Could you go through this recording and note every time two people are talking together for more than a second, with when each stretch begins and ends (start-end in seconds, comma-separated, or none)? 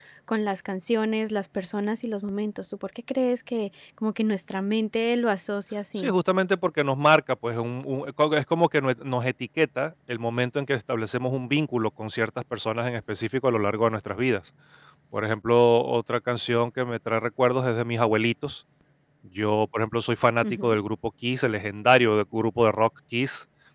none